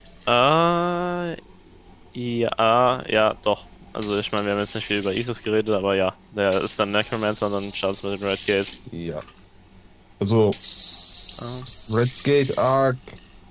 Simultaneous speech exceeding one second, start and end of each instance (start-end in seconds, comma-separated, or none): none